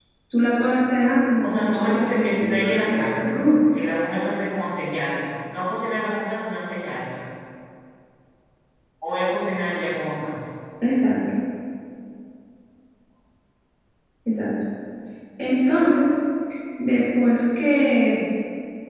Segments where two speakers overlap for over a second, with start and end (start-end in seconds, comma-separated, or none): 1.4-3.3